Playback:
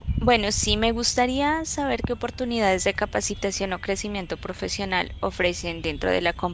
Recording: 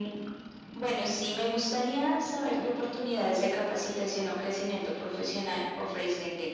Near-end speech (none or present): none